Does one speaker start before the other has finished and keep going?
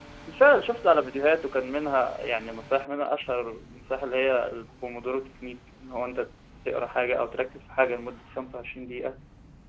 No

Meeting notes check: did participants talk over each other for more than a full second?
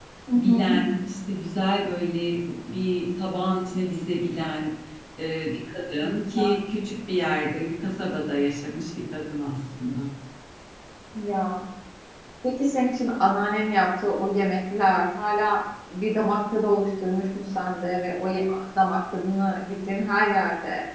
No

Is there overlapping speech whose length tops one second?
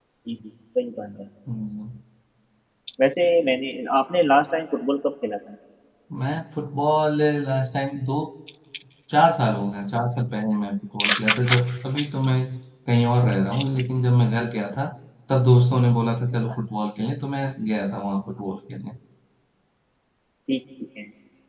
No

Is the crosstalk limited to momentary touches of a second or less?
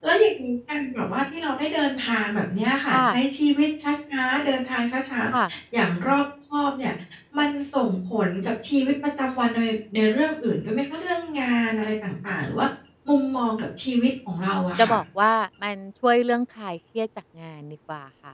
Yes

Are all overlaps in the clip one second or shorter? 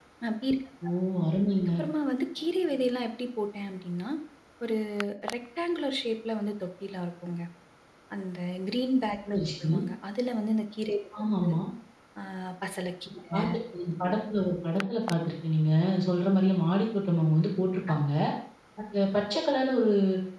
Yes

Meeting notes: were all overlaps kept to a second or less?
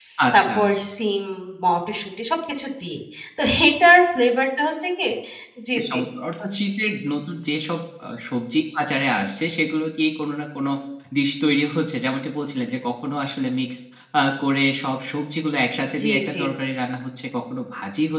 Yes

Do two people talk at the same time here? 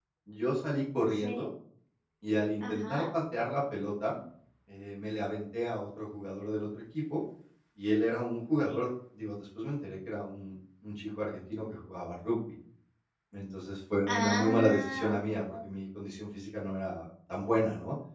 Yes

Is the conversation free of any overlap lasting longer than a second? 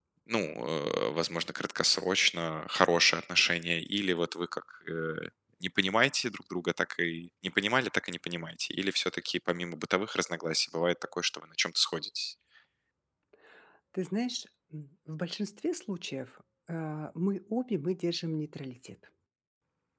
Yes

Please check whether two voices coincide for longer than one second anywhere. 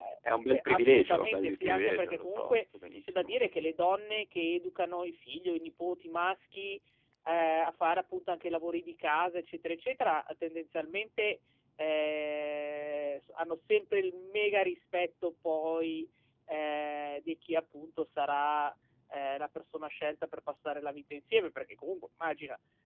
Yes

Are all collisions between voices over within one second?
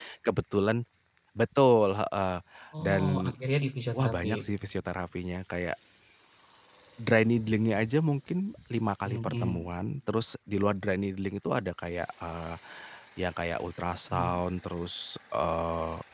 Yes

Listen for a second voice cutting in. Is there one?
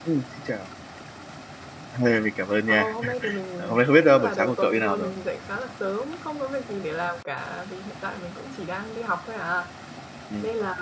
Yes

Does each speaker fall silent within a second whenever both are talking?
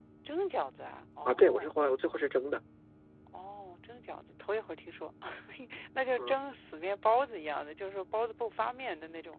Yes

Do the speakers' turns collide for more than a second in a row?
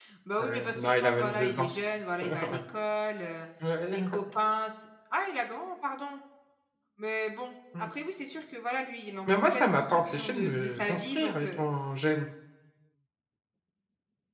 Yes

